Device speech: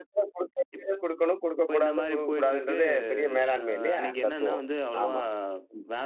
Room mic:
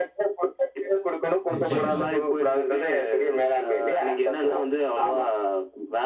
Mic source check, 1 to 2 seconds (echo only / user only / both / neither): both